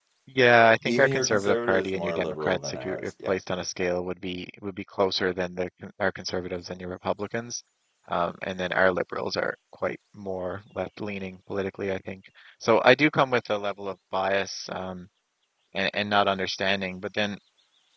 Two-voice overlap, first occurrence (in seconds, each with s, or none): 0.8 s